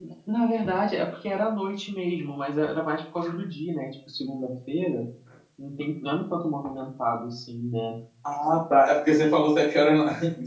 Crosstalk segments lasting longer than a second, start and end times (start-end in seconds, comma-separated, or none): none